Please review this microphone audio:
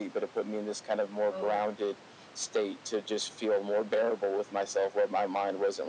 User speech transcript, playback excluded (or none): Oh,